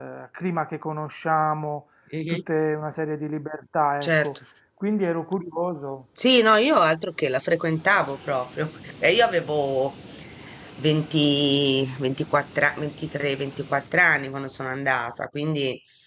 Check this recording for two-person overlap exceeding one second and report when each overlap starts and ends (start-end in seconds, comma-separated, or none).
none